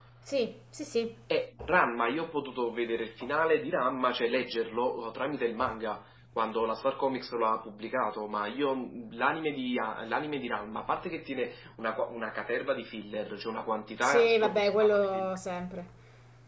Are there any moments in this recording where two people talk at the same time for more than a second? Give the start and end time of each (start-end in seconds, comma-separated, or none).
14.0-15.3